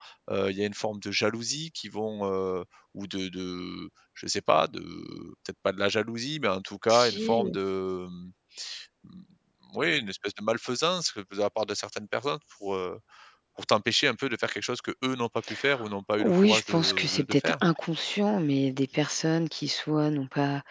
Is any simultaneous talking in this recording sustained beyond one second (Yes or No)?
Yes